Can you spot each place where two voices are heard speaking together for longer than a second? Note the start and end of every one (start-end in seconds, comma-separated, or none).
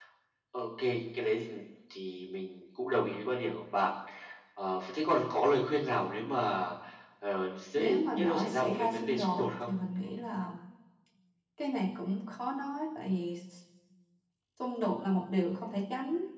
7.8-9.7